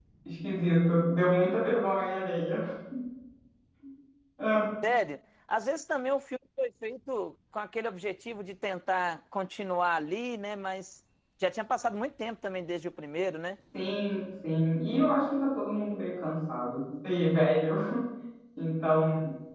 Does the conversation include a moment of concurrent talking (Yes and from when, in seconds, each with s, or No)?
No